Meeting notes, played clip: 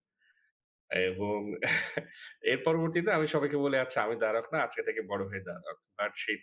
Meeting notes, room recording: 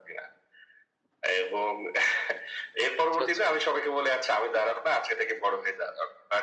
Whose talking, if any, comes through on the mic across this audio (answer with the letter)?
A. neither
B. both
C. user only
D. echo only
B